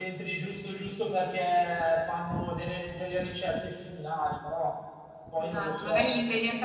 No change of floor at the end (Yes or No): No